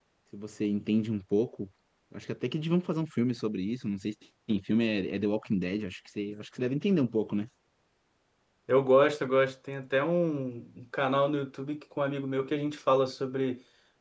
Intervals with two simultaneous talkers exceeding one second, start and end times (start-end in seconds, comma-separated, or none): none